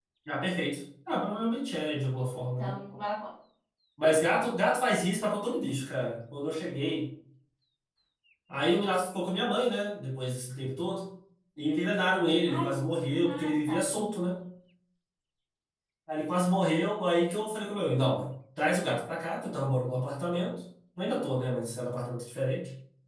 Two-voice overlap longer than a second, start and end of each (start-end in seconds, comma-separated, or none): 12.5-14.2